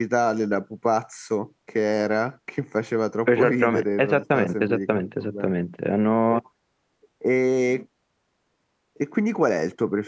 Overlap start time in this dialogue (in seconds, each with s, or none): 3.3 s